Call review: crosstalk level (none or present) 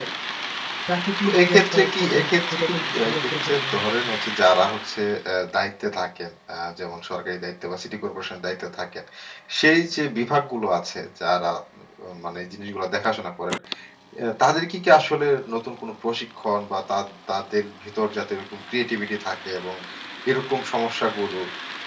present